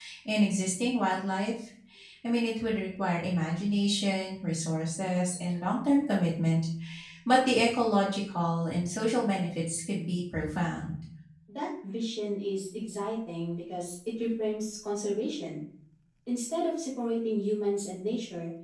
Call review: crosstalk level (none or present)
none